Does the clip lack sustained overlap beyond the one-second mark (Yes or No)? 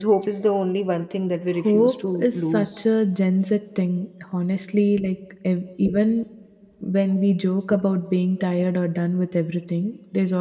No